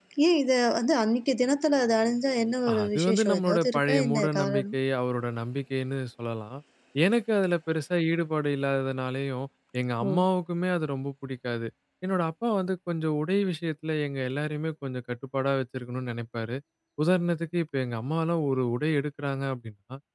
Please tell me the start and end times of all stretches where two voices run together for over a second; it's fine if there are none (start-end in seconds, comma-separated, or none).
2.8-4.8